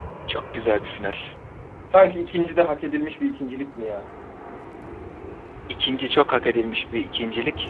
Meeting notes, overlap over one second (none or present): none